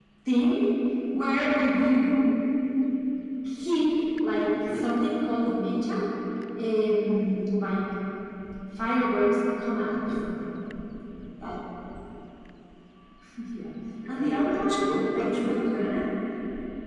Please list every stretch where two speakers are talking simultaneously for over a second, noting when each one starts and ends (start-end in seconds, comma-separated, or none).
14.1-15.9